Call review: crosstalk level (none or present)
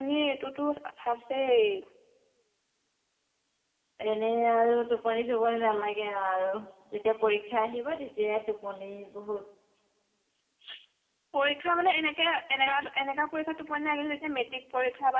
none